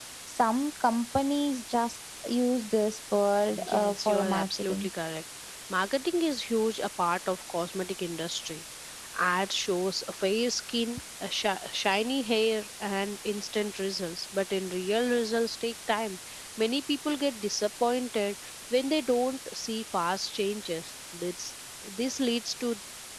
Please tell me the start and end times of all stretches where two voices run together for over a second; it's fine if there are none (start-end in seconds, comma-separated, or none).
3.5-4.9